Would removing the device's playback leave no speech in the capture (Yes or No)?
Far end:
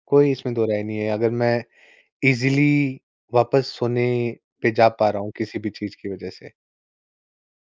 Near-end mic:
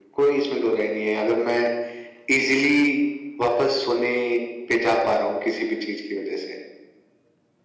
Yes